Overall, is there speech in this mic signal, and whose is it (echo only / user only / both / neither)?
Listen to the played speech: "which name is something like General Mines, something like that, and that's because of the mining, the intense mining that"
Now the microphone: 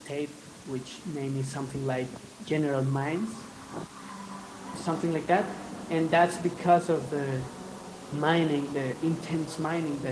echo only